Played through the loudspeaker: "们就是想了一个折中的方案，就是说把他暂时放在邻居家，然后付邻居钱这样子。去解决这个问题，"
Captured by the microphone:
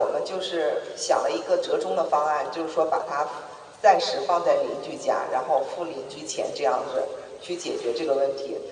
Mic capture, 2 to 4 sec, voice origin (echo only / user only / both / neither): echo only